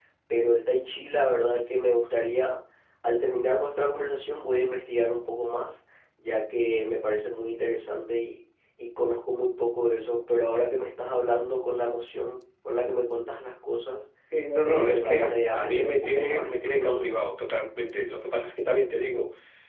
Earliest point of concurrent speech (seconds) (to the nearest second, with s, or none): 15 s